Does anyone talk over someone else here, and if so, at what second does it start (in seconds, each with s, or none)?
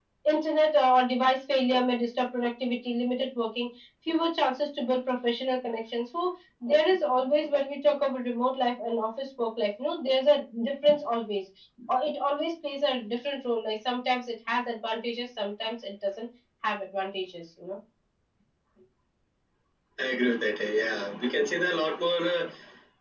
none